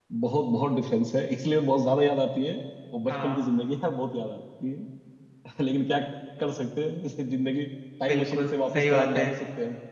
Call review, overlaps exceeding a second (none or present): present